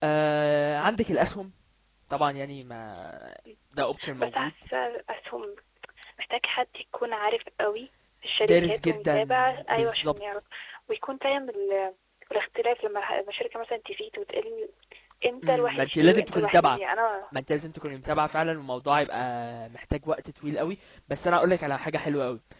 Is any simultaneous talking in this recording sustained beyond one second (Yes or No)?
Yes